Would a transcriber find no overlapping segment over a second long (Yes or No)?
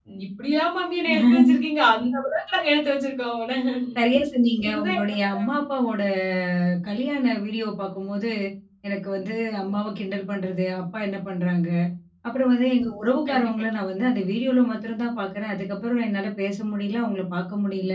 Yes